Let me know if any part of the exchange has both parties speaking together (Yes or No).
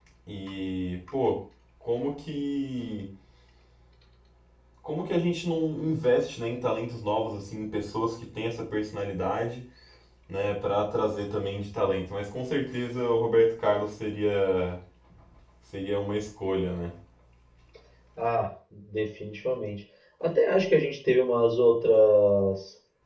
No